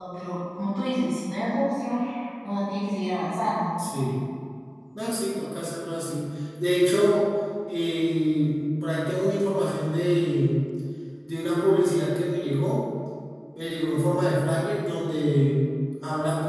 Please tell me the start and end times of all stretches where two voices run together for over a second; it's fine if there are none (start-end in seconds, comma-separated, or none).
none